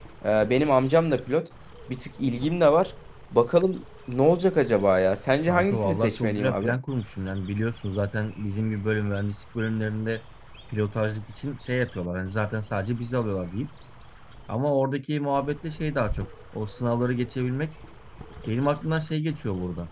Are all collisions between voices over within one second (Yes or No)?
No